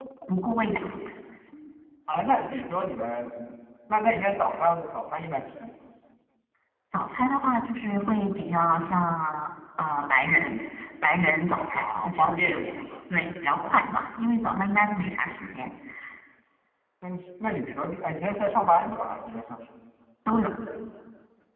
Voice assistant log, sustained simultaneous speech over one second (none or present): present